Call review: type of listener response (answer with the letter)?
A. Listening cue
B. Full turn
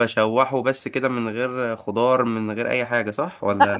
B